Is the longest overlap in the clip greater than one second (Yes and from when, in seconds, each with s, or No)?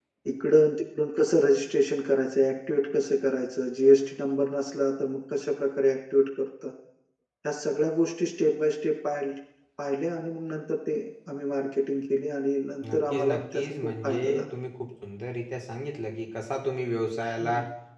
Yes, from 12.8 s